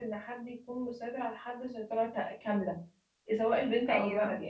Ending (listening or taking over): listening